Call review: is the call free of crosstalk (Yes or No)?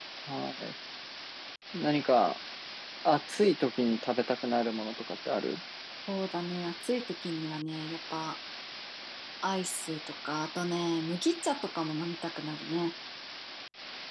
Yes